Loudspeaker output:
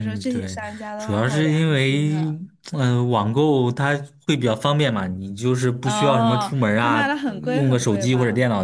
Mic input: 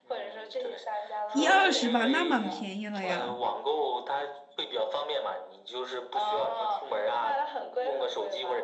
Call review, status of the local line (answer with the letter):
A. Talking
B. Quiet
A